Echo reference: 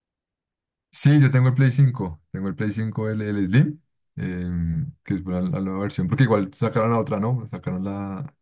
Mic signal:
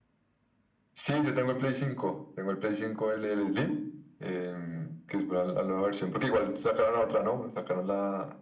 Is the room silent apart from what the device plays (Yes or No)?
Yes